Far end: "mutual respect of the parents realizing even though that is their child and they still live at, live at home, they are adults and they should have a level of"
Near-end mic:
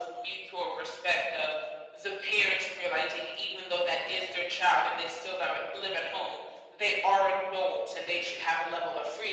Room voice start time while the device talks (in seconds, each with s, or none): none